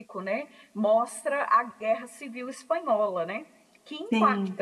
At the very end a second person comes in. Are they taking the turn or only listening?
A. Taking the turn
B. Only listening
B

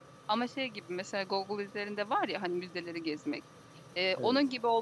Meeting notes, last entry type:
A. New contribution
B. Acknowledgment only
B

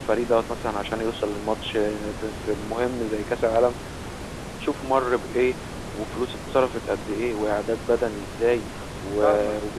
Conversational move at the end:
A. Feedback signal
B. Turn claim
A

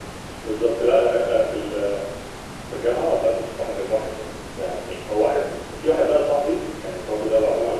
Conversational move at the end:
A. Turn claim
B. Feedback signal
A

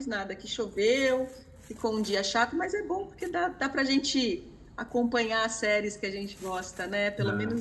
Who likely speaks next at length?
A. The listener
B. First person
A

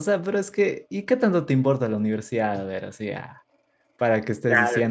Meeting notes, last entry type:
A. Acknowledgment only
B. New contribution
A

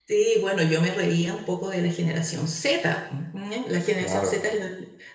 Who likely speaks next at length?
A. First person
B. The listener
A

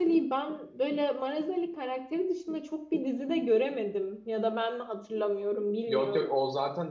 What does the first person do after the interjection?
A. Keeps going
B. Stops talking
B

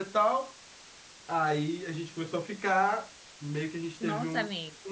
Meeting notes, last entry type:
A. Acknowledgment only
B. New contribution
A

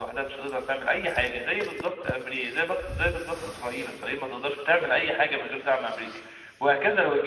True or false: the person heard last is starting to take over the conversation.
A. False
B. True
A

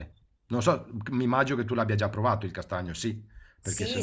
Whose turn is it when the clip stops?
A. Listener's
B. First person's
A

